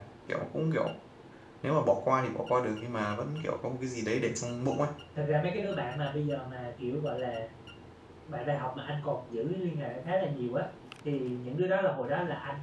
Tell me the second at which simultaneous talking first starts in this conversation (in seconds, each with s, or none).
none